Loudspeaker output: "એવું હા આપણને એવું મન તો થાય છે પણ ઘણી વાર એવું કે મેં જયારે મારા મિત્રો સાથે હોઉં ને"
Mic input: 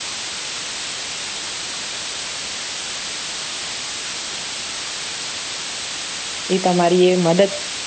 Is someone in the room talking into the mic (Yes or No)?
Yes